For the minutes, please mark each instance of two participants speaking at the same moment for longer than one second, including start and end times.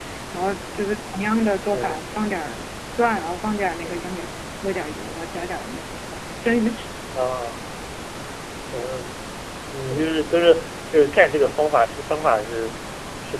none

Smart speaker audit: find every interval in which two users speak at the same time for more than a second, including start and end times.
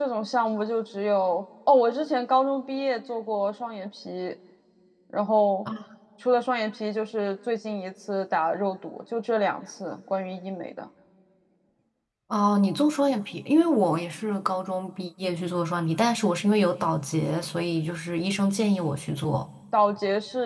none

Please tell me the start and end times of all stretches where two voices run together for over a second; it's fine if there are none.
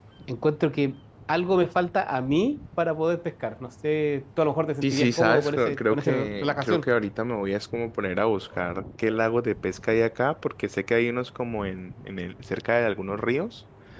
4.8-6.9

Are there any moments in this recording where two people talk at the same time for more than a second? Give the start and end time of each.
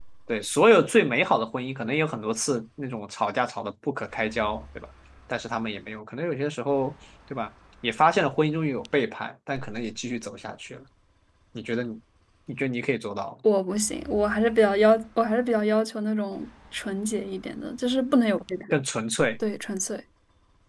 none

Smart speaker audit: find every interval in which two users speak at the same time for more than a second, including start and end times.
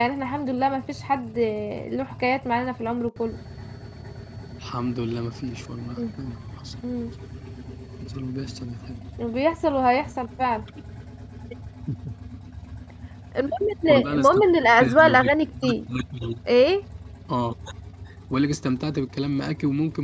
13.9-15.3

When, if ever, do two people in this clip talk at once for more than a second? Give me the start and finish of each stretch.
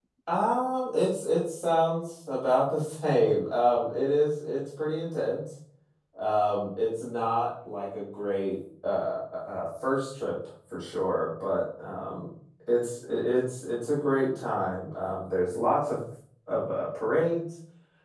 none

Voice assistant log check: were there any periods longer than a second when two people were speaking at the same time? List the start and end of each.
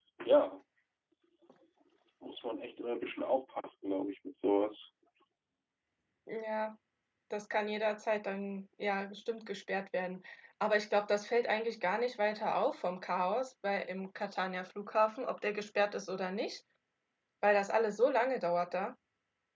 none

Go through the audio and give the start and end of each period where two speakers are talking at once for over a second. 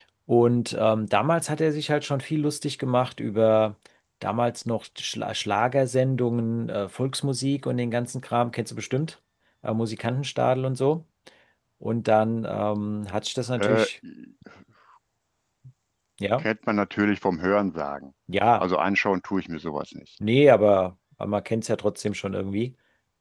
none

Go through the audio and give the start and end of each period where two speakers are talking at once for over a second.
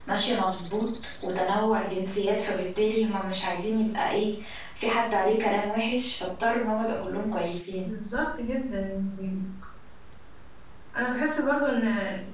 none

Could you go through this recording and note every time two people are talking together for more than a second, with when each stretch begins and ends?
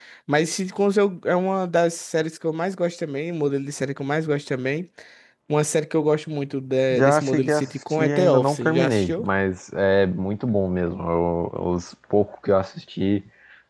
6.9-9.2

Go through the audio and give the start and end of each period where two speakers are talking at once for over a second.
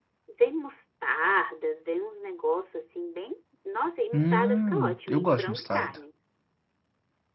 4.1-6.0

